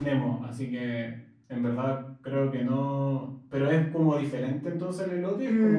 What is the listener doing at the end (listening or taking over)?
taking over